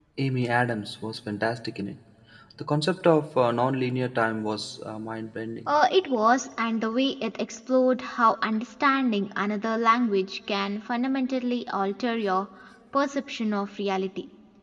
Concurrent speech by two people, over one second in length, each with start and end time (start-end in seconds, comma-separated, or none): none